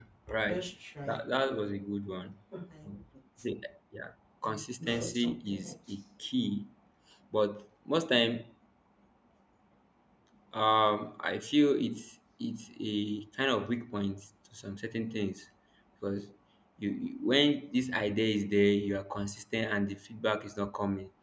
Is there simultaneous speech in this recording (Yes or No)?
Yes